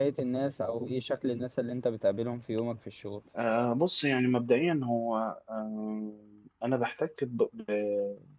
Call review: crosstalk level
none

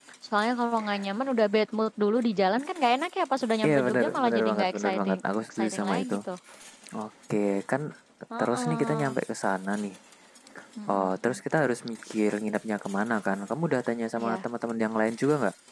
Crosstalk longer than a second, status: present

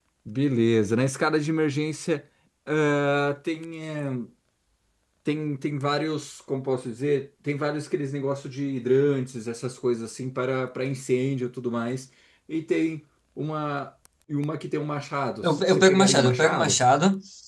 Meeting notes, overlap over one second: present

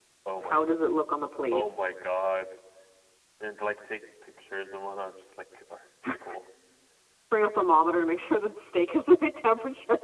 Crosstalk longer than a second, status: none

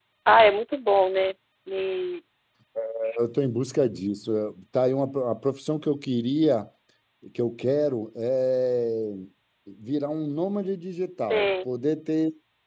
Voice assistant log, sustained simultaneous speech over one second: none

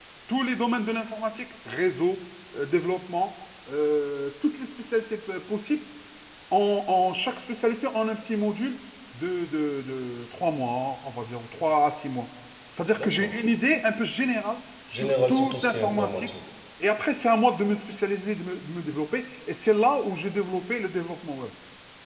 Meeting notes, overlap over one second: present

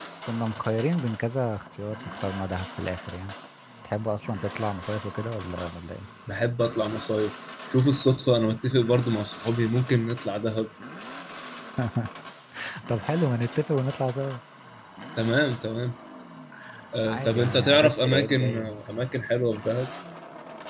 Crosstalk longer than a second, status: present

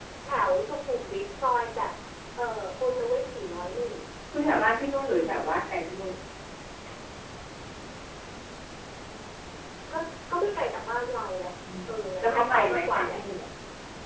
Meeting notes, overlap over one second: present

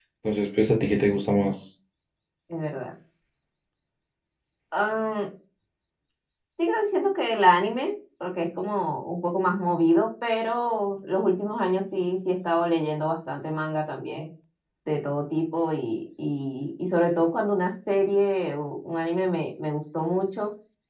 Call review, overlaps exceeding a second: none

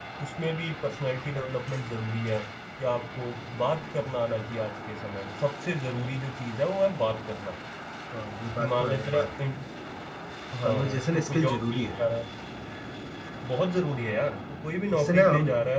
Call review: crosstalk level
present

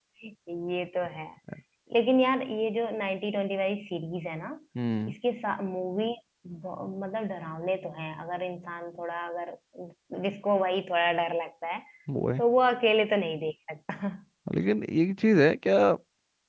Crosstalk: none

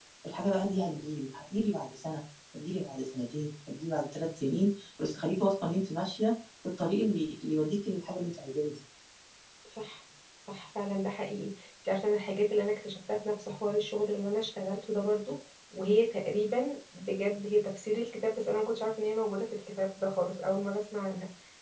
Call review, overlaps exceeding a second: none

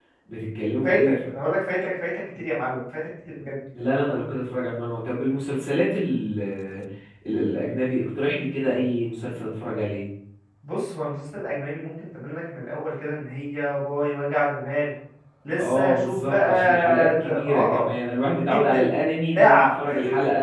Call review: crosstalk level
present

